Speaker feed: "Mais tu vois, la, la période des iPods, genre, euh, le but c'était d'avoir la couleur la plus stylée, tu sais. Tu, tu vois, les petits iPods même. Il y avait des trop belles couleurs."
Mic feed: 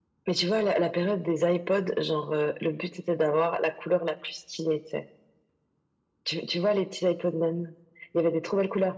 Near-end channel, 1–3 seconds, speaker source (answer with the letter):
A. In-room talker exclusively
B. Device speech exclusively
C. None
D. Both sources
B